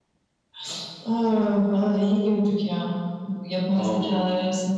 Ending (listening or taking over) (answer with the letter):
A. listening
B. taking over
A